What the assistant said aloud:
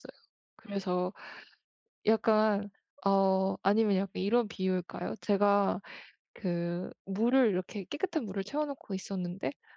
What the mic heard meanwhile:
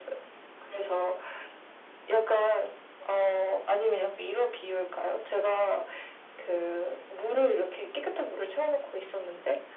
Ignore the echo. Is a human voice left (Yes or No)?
No